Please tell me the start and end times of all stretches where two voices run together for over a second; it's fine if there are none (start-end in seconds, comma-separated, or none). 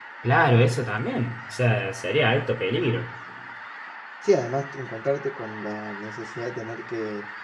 none